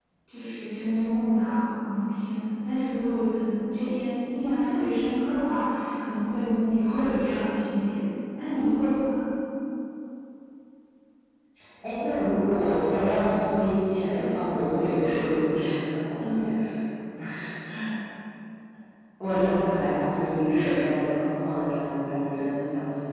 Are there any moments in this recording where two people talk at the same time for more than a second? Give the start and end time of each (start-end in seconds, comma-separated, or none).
none